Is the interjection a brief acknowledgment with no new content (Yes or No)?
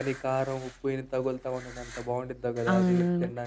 No